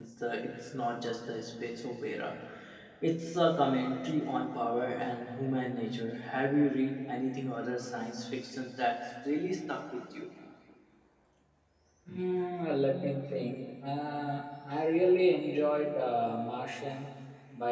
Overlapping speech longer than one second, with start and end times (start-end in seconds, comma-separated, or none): none